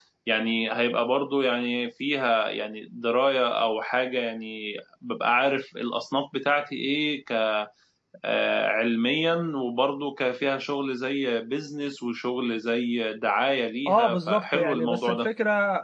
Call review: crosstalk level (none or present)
present